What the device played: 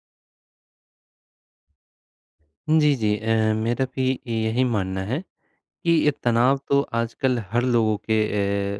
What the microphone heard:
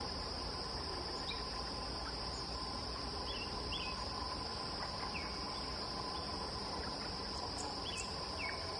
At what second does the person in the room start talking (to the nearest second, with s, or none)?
none